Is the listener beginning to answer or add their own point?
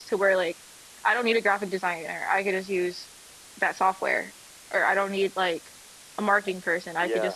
No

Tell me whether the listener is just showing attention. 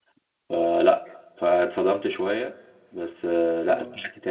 Yes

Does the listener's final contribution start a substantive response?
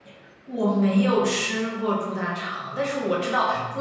No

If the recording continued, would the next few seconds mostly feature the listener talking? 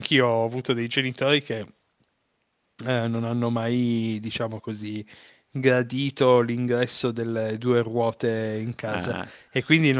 No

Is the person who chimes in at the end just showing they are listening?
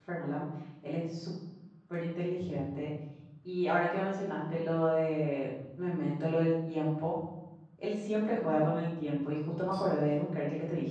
Yes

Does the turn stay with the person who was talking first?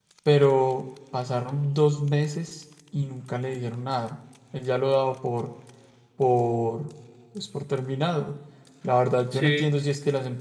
Yes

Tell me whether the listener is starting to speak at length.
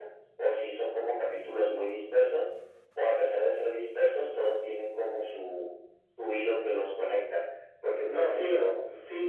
Yes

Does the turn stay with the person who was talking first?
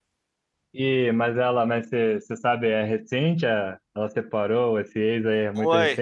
No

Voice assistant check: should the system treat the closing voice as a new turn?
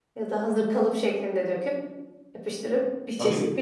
Yes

